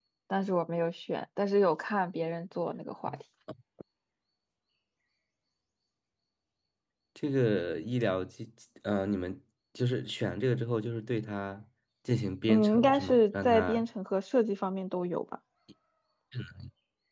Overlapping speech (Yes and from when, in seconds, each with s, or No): Yes, from 12.5 s